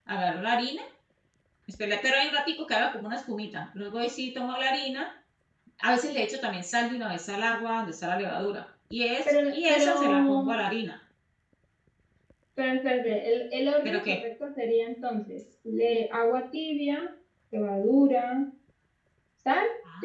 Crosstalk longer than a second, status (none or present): present